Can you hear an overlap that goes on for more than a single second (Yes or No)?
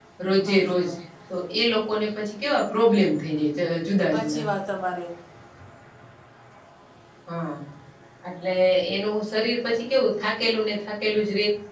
No